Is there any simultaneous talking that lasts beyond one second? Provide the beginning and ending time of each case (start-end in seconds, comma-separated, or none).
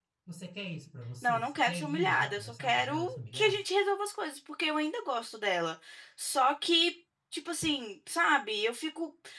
1.2-3.6